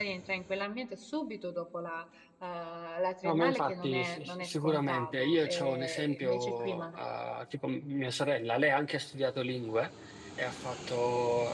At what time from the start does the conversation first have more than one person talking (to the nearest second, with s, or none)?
3 s